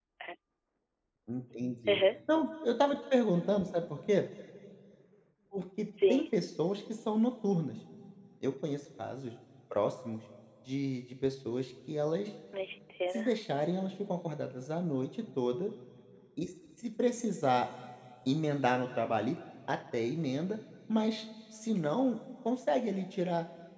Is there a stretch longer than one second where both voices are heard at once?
No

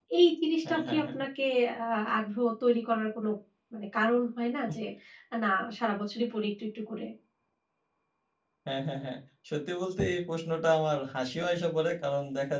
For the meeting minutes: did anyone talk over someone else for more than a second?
No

